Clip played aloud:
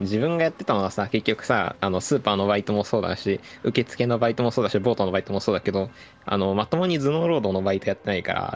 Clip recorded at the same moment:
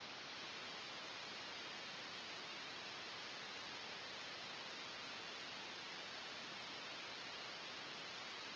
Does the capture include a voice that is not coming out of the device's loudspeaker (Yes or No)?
No